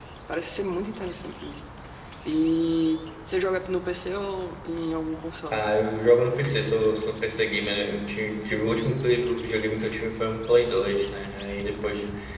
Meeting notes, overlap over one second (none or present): none